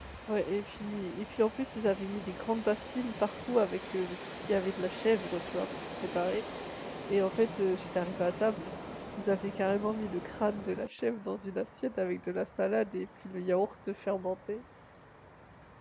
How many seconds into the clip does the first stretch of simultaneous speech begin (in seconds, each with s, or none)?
none